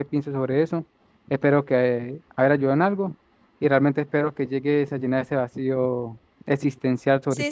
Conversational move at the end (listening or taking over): taking over